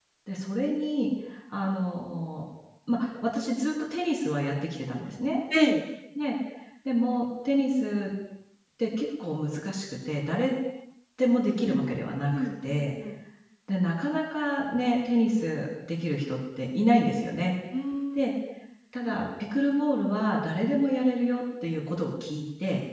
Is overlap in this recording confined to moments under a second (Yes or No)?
No